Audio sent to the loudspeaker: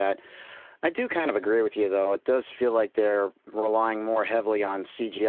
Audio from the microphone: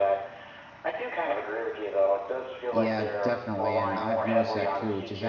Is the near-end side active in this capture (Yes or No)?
Yes